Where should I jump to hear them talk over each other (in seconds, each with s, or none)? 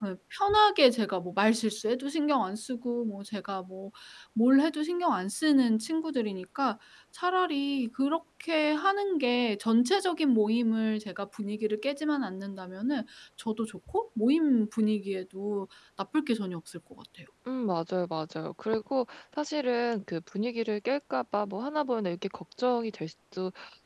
none